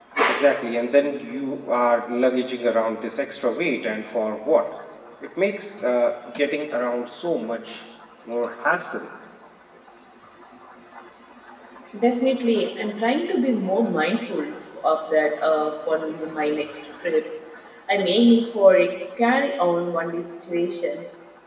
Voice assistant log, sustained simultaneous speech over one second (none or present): none